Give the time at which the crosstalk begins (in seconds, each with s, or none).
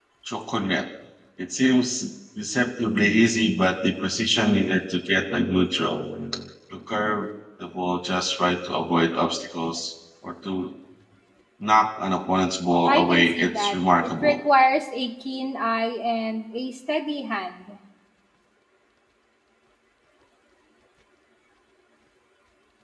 12.9 s